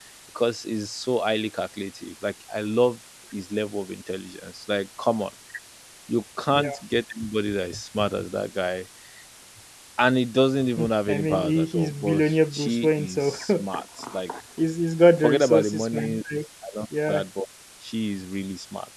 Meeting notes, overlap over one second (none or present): present